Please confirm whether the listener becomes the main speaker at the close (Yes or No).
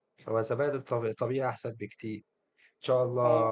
No